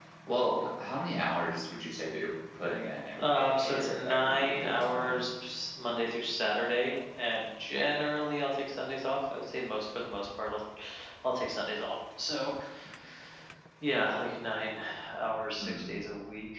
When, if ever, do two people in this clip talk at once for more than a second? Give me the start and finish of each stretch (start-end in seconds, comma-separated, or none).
3.2-5.1